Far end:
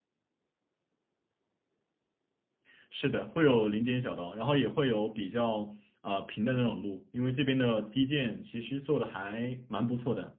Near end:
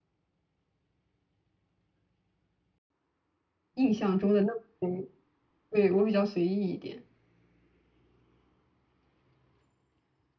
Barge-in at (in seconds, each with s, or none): 3.7 s